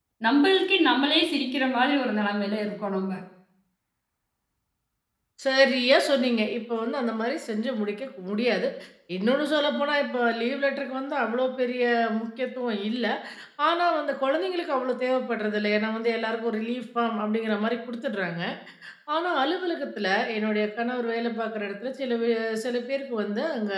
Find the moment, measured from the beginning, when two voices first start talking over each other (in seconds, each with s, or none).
none